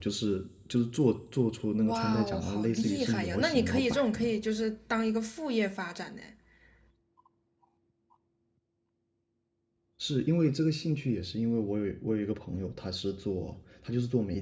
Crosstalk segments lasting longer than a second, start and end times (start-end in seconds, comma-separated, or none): 1.9-4.3